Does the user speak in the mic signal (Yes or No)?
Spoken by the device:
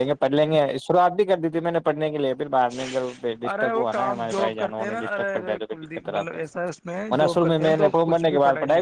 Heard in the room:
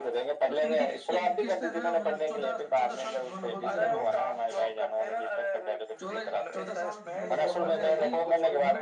Yes